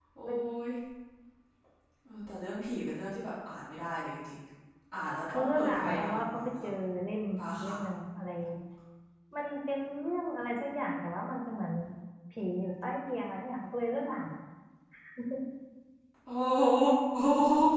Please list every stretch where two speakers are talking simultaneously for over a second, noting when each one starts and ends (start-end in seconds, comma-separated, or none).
5.3-6.7